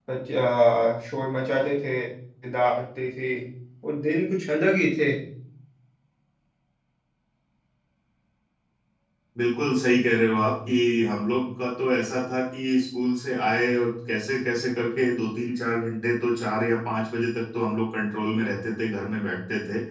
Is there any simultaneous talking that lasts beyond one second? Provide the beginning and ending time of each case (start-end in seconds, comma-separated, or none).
none